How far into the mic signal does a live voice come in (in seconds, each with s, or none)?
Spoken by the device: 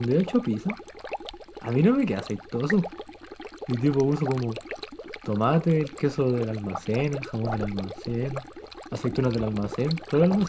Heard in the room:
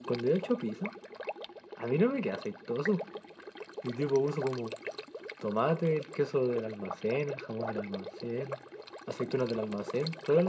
none